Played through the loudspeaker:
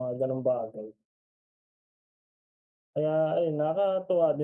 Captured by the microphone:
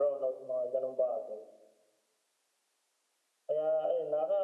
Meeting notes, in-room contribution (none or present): none